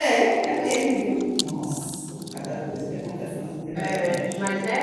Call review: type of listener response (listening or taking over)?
taking over